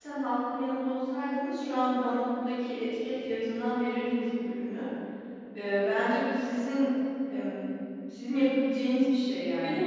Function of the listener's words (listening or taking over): listening